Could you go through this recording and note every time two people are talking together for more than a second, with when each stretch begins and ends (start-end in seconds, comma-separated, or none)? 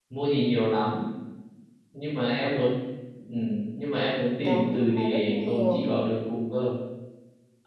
4.4-5.9